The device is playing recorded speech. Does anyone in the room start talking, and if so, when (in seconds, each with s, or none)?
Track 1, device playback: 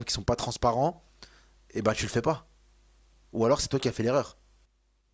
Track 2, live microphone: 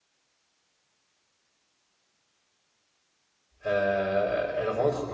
3.6 s